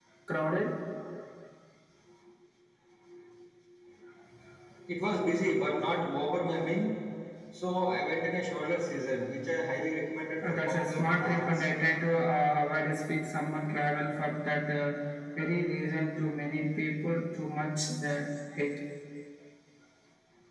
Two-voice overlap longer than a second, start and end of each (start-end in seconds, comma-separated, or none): 10.4-11.6